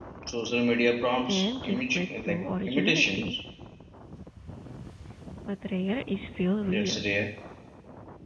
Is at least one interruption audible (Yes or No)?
Yes